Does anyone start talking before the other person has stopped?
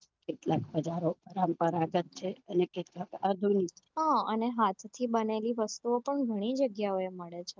No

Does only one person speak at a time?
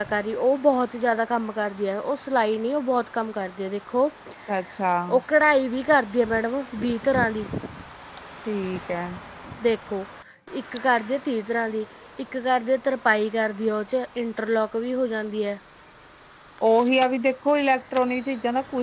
Yes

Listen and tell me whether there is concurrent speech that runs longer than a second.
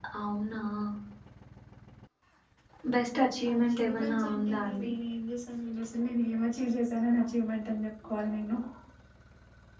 Yes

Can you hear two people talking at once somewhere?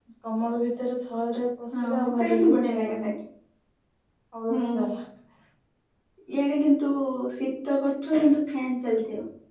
Yes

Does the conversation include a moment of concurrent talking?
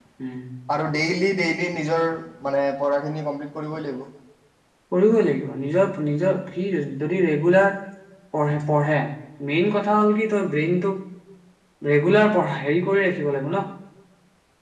No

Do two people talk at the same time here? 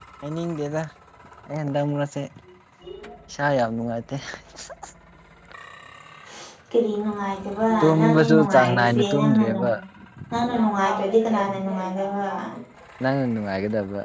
Yes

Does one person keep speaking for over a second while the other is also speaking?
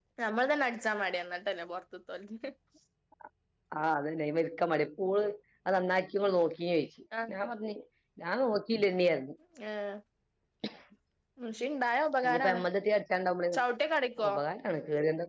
No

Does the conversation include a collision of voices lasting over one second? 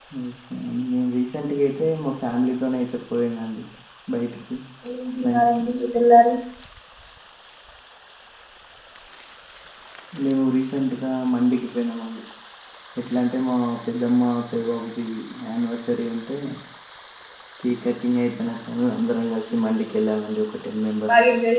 No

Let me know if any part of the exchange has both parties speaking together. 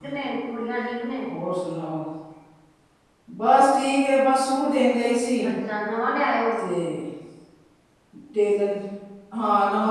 No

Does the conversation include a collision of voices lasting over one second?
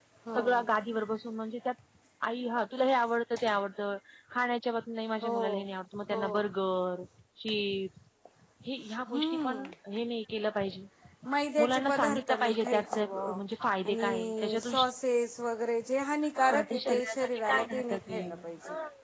Yes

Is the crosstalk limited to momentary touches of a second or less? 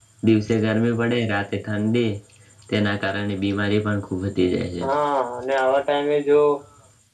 Yes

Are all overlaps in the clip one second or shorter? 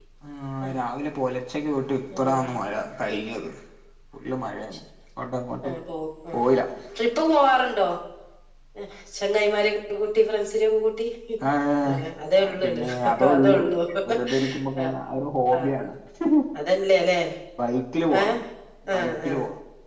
Yes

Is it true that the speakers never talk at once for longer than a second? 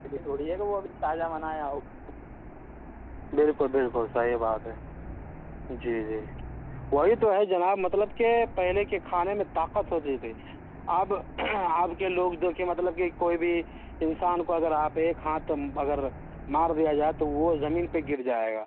Yes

